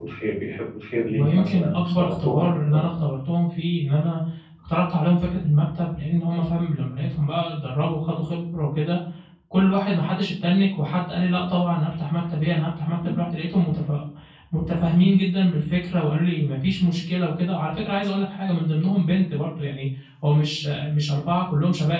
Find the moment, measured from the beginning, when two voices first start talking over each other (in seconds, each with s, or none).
1.1 s